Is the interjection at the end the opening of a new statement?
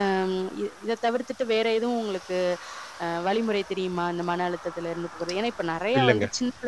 No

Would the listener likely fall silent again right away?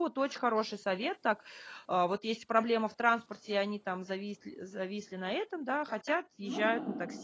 Yes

